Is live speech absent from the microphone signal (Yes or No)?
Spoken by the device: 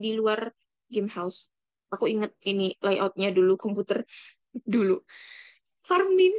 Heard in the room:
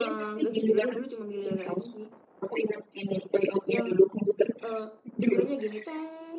No